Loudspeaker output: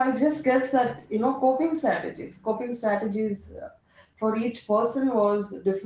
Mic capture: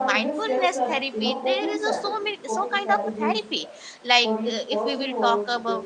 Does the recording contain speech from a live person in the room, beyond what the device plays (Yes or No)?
Yes